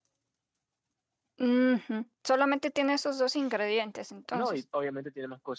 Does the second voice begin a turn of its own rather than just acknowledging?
Yes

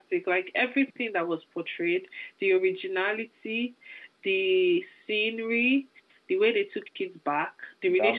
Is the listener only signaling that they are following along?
Yes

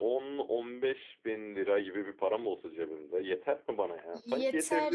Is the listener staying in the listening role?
No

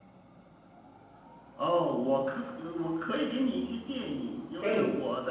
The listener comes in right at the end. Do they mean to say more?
No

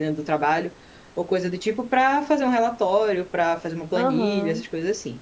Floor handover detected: No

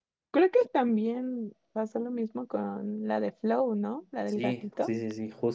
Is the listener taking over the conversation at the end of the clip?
Yes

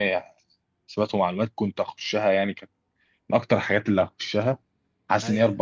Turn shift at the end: No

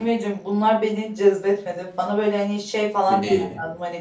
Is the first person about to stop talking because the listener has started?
No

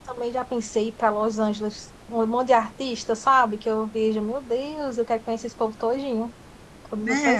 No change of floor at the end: No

